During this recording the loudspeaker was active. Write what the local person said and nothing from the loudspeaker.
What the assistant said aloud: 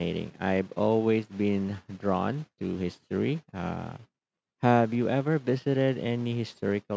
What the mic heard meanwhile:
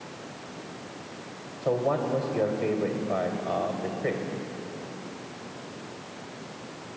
So, what was your favorite part of the trip?

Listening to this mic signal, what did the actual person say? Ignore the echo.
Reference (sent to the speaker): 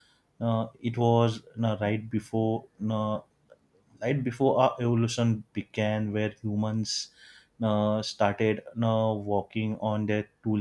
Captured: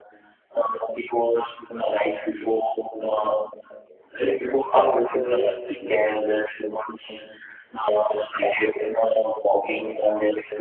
so

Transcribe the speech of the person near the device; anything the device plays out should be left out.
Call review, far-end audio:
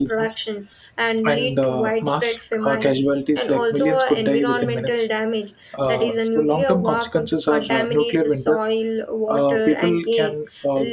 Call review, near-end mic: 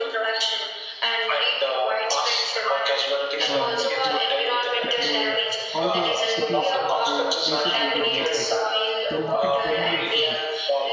uh, like p- the all the cities and the places will get evaporated. There'll nothing. There won't be anything left.

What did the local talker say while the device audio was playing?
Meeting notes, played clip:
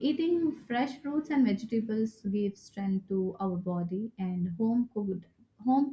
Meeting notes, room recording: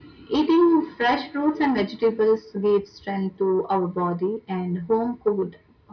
none

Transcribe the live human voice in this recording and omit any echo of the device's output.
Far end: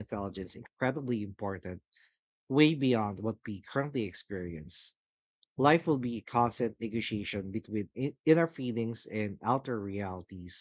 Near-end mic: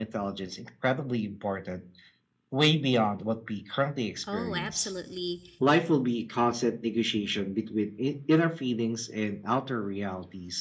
Oh, absolutely.

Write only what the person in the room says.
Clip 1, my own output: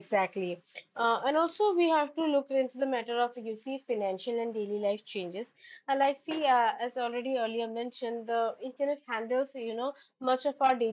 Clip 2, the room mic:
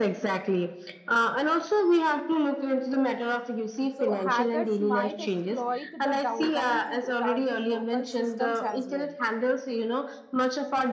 So hackers might exploit the downtime to target local systems as well

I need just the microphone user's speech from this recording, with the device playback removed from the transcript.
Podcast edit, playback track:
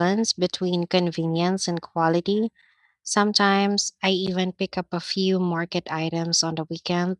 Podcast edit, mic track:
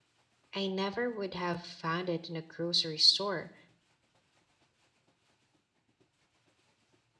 I never would have found it in a grocery store.

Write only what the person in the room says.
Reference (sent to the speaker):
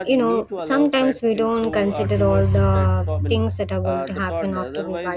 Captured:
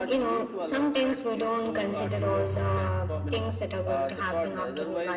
none

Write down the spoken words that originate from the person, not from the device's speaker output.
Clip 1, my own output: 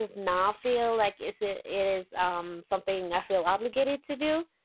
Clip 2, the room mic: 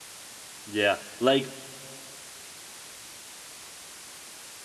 yeah like

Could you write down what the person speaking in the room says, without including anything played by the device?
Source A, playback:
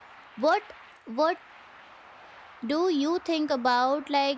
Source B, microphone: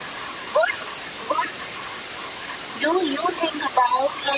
none

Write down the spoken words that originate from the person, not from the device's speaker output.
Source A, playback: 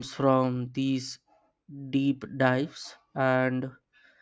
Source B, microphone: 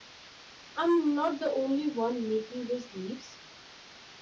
I'm not the only one making those leaps.

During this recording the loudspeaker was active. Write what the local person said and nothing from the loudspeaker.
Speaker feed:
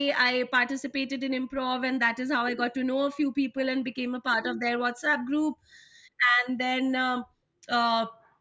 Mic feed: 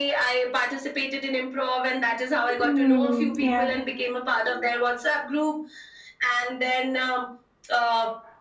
Mm, yeah.

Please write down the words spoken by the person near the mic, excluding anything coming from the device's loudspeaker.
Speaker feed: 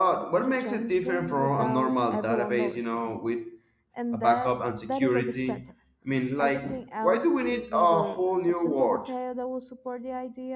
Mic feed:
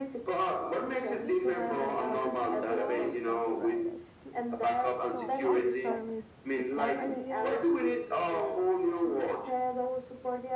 This is why I like talking to you. You always got the right attitude. So I'll start with the core idea

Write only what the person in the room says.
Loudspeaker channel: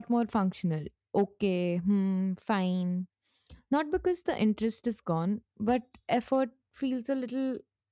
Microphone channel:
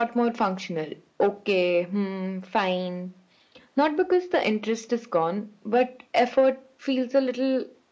none

